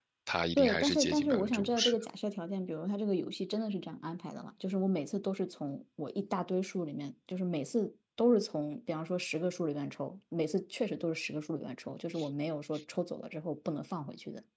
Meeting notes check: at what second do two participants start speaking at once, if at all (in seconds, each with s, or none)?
0.6 s